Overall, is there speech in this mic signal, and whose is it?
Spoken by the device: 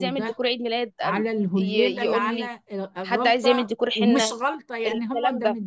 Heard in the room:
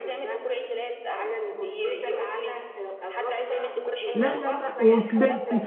both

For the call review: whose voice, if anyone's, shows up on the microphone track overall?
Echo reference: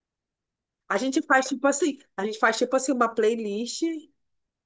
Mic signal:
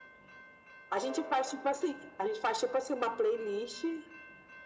echo only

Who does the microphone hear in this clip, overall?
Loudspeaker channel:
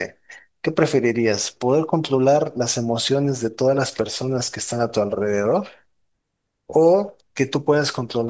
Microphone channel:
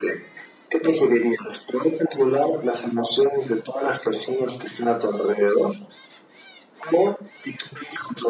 echo only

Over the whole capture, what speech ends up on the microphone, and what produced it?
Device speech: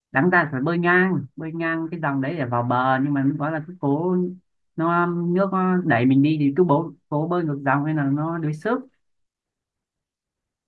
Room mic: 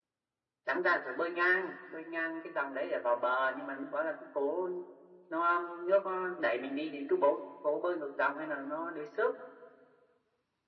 echo only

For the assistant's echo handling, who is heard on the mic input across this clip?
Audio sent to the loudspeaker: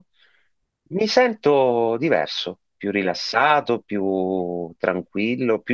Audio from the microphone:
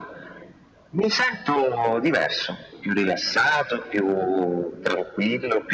echo only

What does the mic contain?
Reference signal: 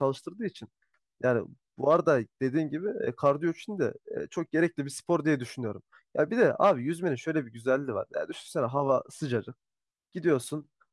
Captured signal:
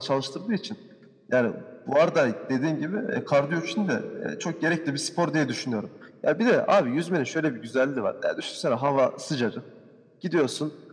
echo only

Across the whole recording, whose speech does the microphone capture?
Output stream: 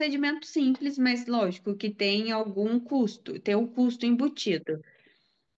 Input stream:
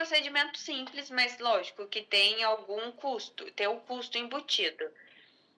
echo only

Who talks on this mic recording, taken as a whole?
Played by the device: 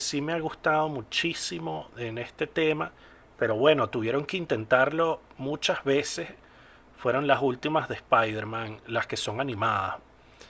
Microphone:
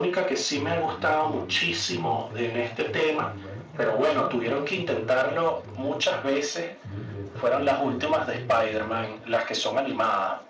both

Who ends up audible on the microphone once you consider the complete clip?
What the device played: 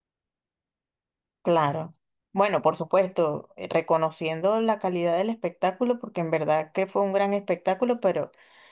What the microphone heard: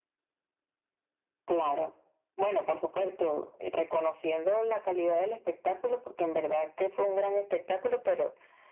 echo only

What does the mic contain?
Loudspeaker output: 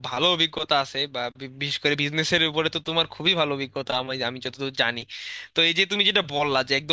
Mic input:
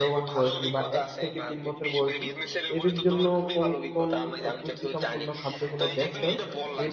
both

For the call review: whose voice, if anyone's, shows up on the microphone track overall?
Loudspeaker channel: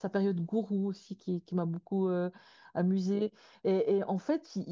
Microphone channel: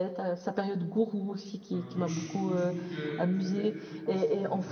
both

